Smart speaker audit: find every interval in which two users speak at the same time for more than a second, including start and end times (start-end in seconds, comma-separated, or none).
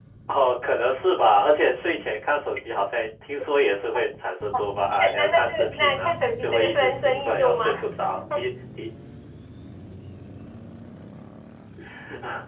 5.0-7.8